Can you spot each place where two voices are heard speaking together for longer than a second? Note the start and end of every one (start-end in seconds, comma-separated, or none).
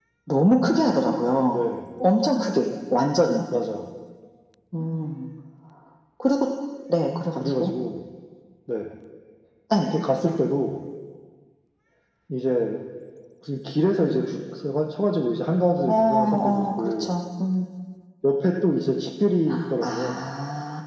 15.9-17.2